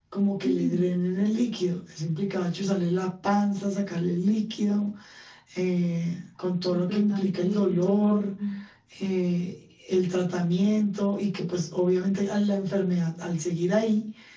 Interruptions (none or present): present